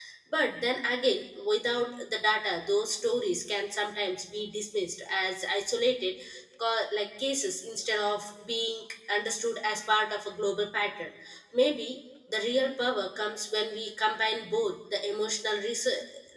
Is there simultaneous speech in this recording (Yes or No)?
No